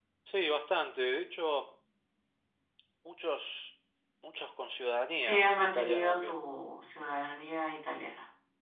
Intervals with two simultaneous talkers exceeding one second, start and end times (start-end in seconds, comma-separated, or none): 5.2-6.4